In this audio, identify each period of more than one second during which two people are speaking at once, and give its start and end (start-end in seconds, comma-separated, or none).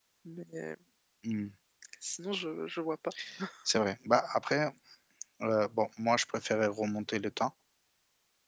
none